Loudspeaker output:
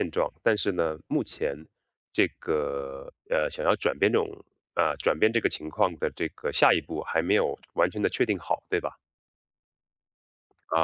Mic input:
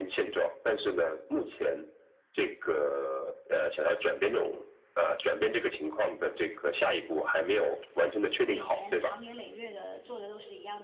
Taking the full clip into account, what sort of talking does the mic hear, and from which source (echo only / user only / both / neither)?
both